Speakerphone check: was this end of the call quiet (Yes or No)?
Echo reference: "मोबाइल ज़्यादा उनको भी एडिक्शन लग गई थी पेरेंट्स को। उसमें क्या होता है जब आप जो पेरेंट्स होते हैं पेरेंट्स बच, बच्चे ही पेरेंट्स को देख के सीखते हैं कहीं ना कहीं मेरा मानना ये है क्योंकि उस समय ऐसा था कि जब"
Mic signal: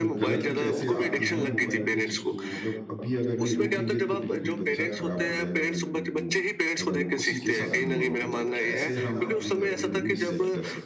No